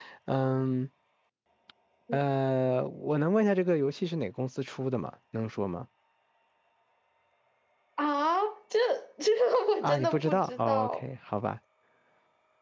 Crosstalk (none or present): present